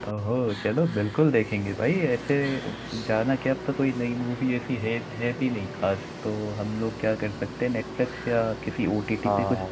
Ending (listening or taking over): taking over